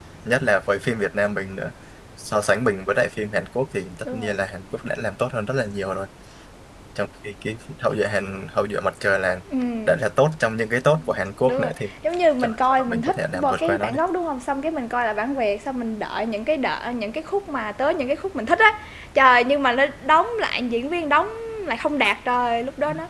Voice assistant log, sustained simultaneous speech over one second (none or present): present